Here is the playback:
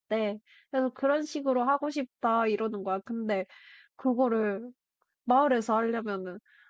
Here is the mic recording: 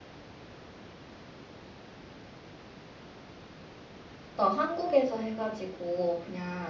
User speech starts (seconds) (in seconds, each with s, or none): 4.3 s